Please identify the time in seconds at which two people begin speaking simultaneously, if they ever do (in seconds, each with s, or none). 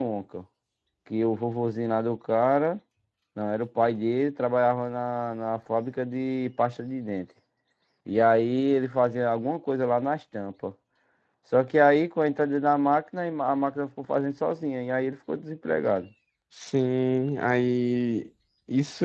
none